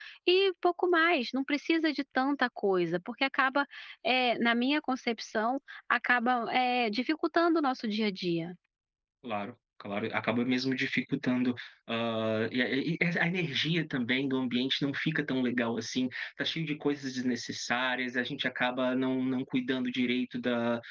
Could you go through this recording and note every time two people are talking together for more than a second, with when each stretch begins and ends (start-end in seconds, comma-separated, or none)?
none